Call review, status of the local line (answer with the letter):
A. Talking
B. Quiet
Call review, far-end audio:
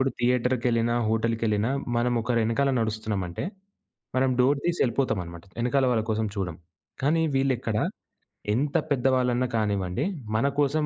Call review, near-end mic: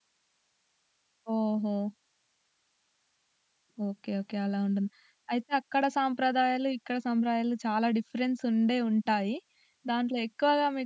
A